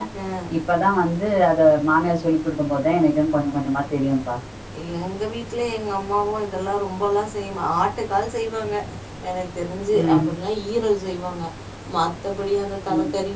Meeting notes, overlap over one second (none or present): none